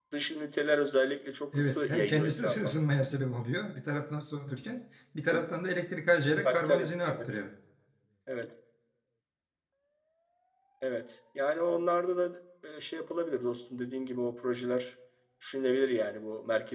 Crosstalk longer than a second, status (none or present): present